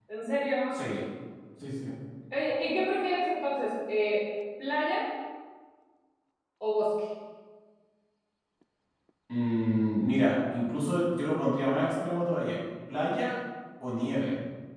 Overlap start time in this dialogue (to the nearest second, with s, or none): none